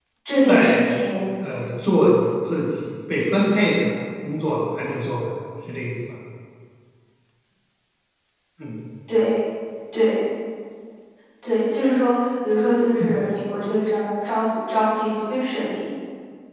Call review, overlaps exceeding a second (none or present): none